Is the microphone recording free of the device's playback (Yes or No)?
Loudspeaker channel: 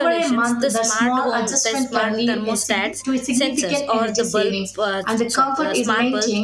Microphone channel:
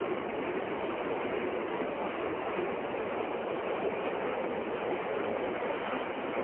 Yes